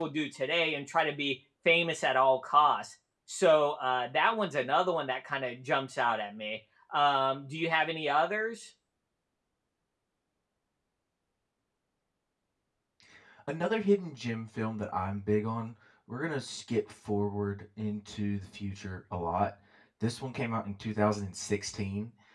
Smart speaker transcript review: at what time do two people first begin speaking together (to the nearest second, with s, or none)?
none